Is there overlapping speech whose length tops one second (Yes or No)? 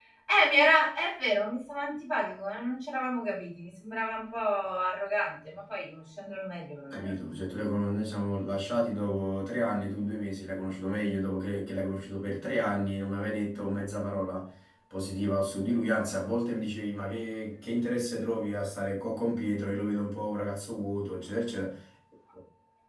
No